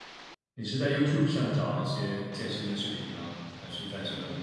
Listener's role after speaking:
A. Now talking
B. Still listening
A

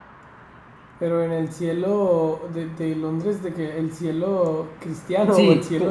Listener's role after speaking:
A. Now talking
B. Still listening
A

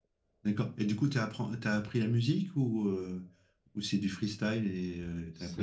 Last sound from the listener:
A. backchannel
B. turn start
B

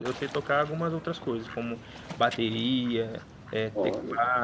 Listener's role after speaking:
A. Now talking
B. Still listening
B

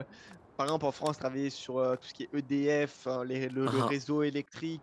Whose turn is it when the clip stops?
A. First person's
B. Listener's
A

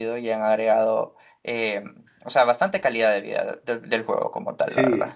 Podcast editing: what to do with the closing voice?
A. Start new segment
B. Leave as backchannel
A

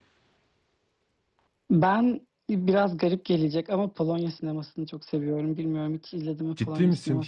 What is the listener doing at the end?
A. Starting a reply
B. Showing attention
A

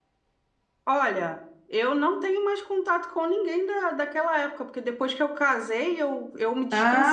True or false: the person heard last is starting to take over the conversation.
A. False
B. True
B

